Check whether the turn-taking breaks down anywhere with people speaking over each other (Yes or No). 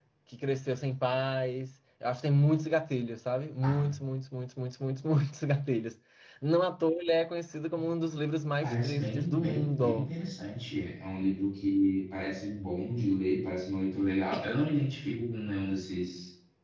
Yes